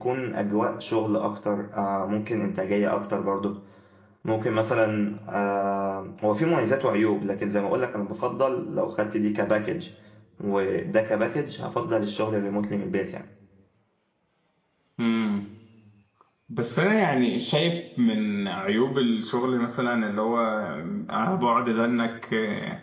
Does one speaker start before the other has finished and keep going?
No

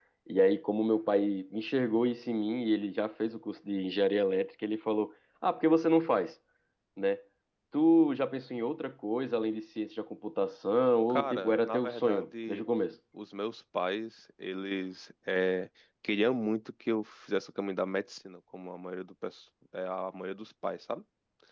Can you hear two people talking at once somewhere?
Yes, from 11.1 s

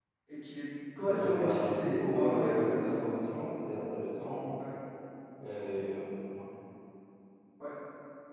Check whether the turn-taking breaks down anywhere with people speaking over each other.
Yes, from 1.0 s

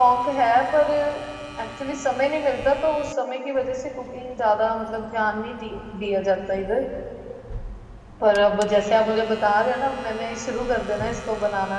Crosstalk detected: No

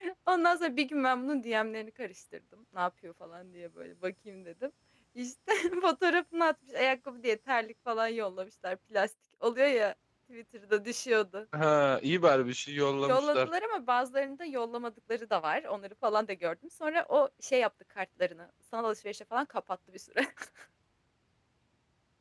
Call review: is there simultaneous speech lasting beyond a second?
No

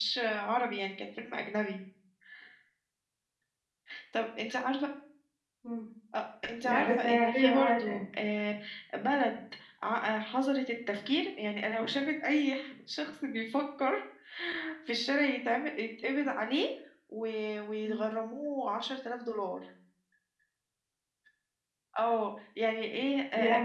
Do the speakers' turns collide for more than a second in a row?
Yes, from 6.6 s

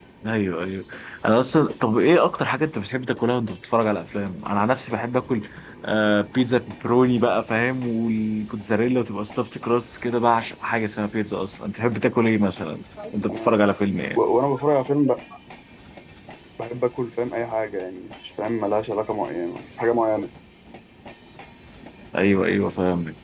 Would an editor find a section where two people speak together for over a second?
No

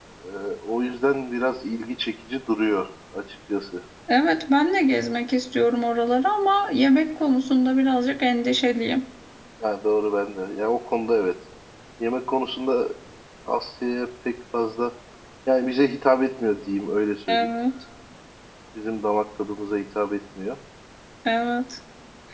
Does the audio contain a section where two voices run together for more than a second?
No

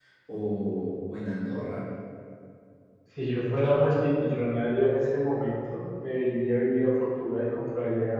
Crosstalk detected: No

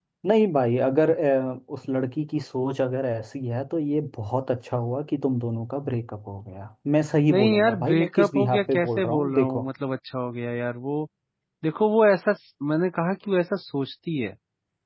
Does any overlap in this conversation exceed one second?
Yes, from 7.3 s

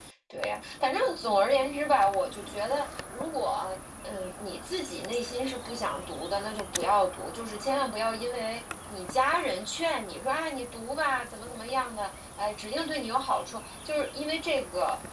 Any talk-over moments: No

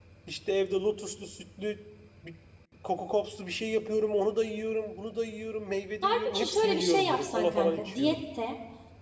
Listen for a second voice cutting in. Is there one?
Yes, from 6.0 s

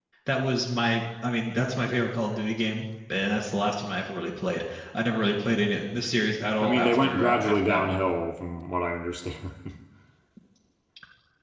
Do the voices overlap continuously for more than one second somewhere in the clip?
Yes, from 6.6 s

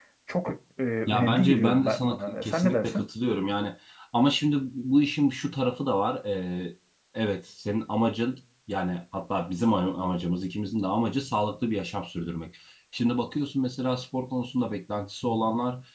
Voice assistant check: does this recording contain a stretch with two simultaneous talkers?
Yes, from 1.1 s

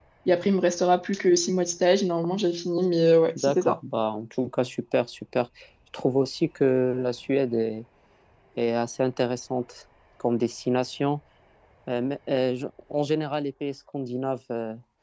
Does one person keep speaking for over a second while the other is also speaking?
No

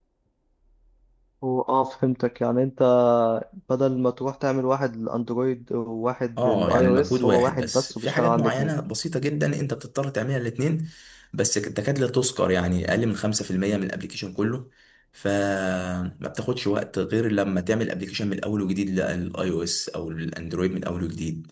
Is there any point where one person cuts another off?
Yes, from 6.4 s

